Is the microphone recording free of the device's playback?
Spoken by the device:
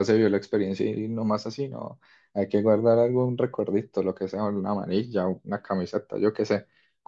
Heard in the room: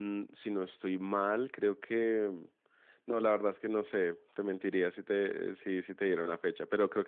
Yes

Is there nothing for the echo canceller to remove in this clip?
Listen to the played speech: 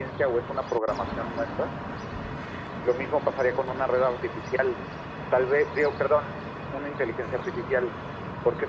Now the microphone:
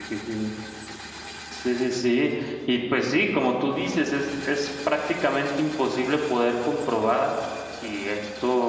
Yes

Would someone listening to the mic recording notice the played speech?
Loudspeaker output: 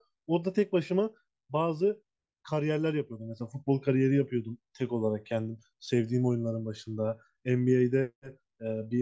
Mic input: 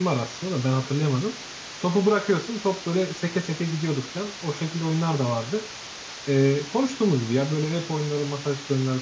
No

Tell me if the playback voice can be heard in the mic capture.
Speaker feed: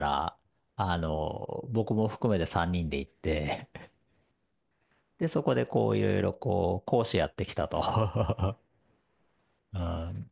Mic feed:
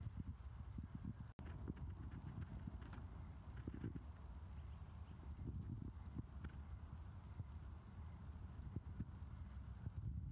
No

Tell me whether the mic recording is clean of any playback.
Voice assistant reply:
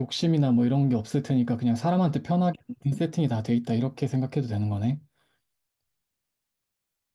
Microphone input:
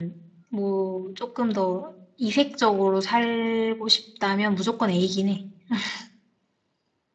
Yes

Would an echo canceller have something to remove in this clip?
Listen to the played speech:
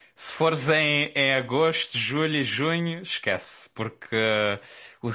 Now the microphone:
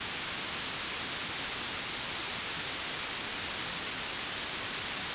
No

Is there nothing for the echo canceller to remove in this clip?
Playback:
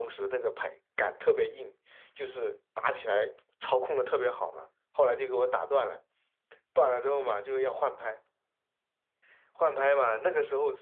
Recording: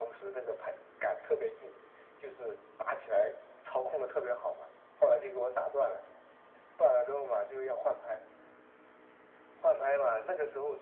No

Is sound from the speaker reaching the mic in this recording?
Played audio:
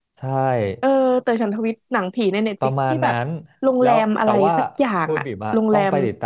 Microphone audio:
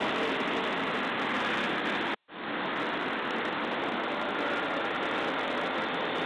No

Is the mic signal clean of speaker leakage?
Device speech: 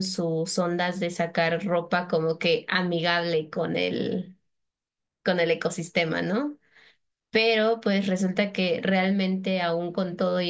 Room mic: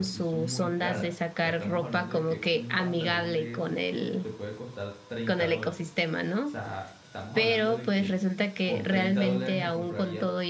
No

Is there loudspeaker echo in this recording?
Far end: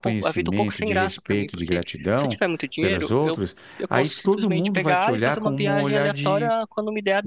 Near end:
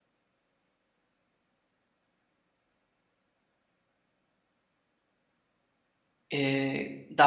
No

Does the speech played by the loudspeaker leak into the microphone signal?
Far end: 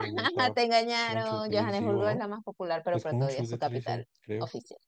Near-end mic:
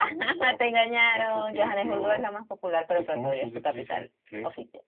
Yes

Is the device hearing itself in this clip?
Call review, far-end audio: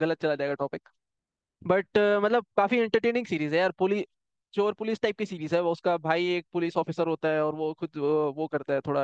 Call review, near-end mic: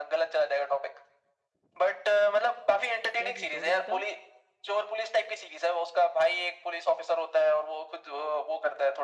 Yes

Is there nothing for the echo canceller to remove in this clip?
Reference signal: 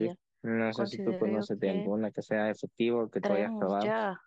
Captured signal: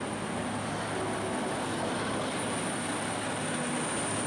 Yes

